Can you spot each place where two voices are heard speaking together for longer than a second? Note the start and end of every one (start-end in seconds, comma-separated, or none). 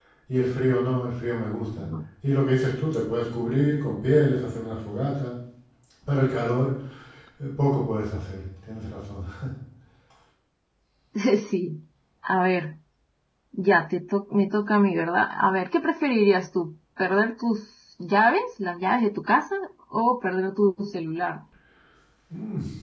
none